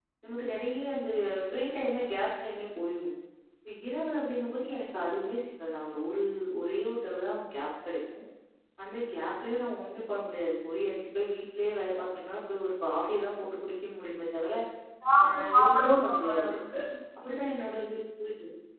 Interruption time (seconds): 15.2 s

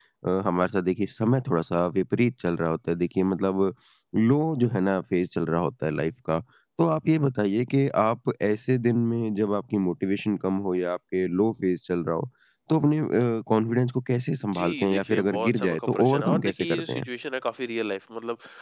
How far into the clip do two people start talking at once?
14.4 s

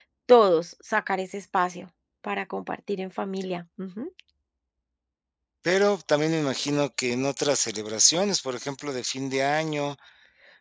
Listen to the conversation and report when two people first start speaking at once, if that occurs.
none

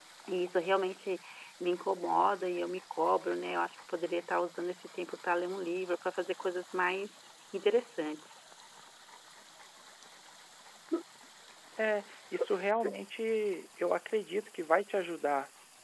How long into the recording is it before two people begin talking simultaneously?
none

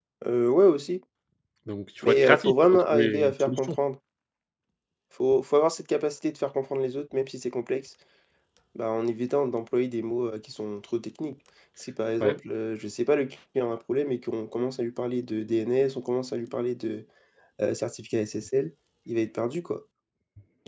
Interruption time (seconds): 2.1 s

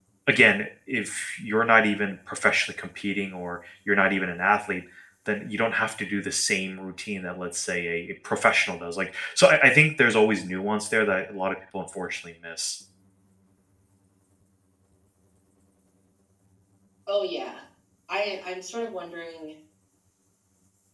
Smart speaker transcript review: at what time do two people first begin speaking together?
none

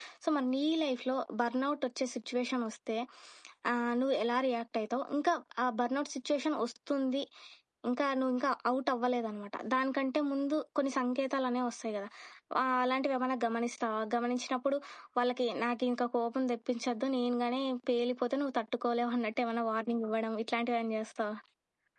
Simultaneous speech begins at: none

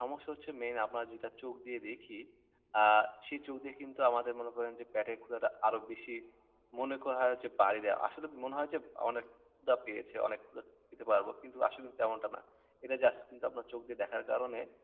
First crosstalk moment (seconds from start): none

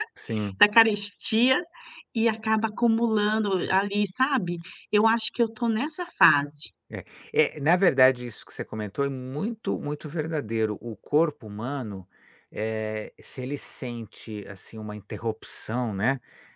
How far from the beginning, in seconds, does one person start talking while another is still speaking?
none

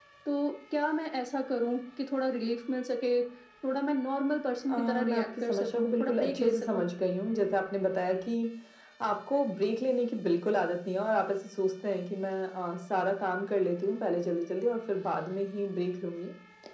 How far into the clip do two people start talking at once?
4.7 s

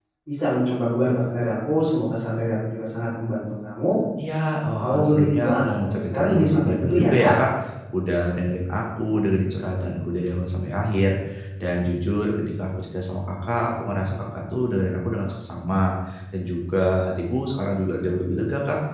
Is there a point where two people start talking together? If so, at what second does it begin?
4.7 s

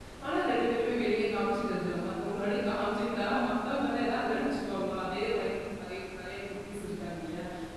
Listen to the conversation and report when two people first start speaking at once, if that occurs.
none

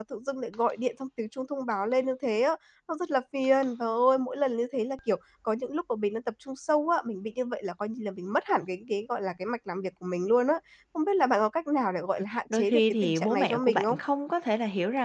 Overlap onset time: 12.3 s

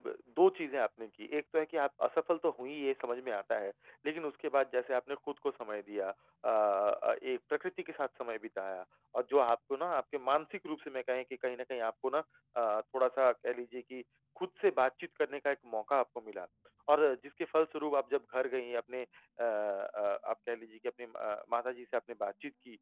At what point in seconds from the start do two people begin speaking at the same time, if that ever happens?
none

